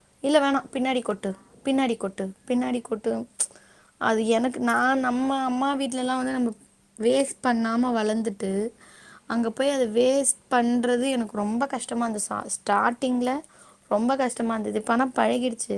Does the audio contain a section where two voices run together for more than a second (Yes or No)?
No